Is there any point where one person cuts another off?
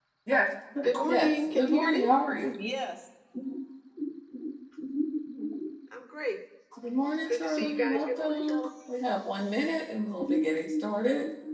Yes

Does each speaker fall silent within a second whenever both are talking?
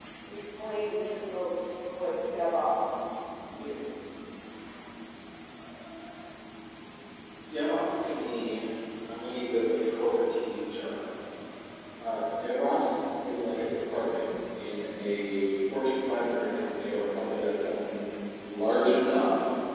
Yes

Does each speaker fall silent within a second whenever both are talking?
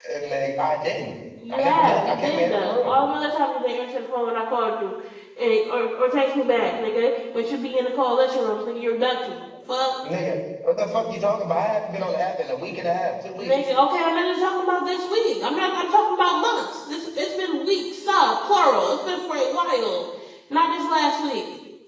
No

